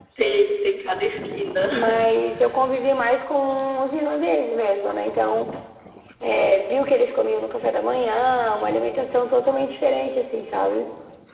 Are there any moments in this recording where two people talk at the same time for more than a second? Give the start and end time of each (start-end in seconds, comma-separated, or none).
none